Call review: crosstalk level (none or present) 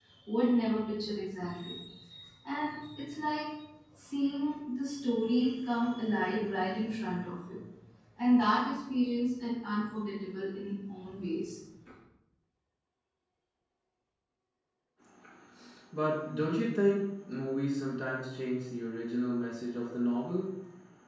none